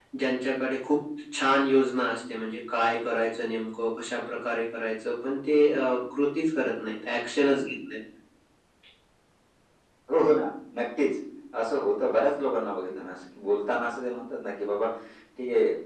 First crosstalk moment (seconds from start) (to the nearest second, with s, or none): none